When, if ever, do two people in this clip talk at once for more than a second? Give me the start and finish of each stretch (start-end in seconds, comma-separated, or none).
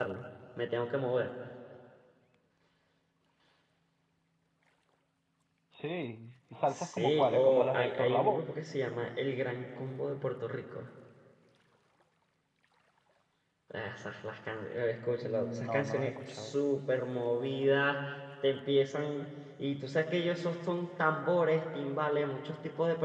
6.7-8.4, 15.2-16.6